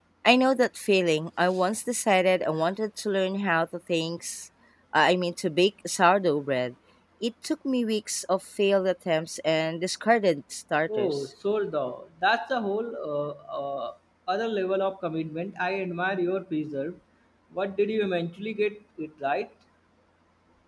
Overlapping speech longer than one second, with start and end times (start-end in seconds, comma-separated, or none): none